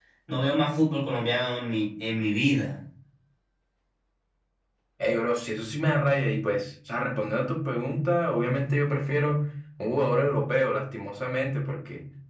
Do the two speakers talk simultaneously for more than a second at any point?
No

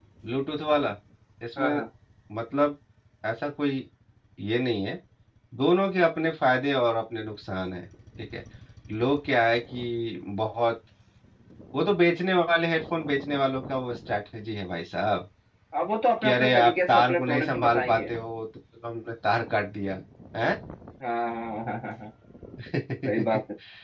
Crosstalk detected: Yes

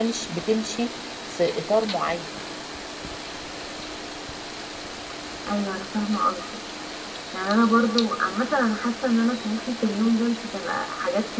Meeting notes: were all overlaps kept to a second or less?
Yes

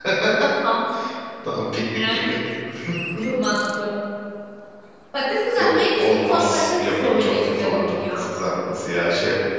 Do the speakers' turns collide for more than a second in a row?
Yes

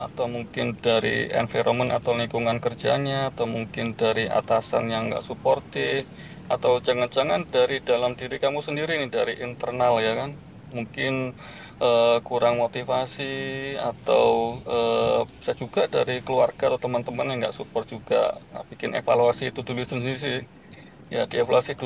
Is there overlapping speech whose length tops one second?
No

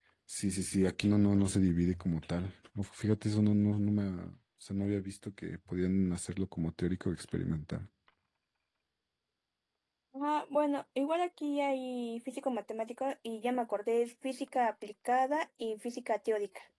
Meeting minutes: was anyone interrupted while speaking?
No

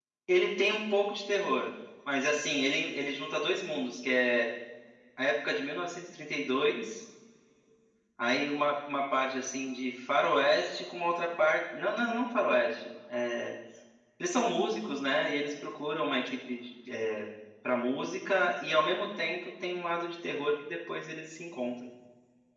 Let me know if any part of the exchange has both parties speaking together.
No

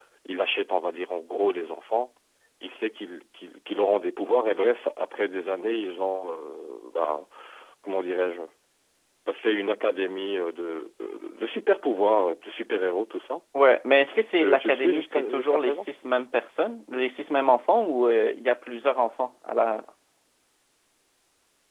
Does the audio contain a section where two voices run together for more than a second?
Yes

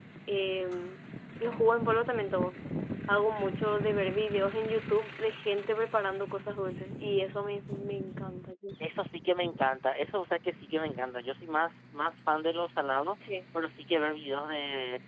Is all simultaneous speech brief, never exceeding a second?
Yes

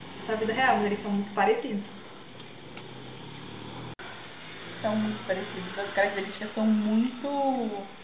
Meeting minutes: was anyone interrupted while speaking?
No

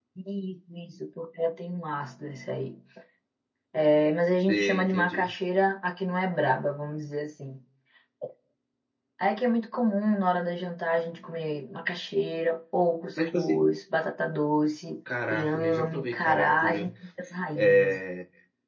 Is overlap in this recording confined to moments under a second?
No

